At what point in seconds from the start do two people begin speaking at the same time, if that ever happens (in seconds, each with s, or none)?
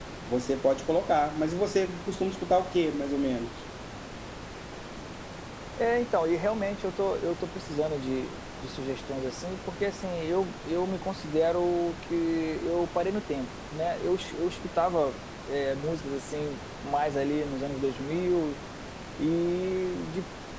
none